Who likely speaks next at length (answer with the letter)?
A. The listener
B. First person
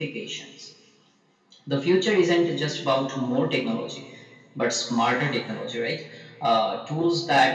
B